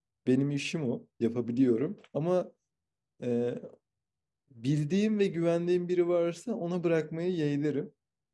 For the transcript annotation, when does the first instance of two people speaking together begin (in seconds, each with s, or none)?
none